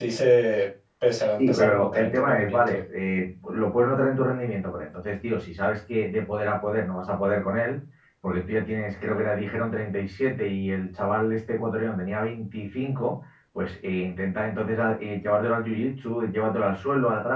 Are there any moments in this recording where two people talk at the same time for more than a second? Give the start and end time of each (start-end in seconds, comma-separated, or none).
1.4-2.8